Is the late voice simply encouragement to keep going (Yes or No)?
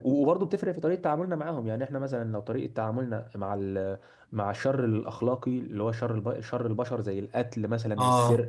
Yes